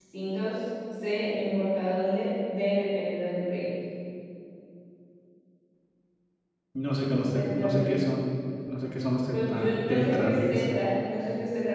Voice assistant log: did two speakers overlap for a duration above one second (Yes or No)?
Yes